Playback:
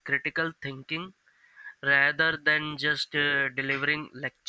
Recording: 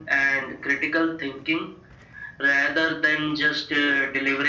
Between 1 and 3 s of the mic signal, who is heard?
echo only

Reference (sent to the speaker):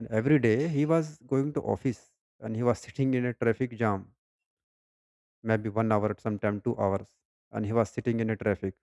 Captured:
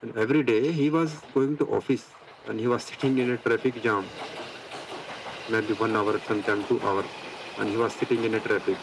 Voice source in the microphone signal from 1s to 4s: echo only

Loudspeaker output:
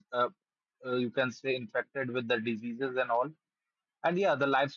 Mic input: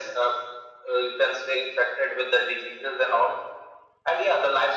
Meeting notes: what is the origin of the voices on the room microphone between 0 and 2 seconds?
echo only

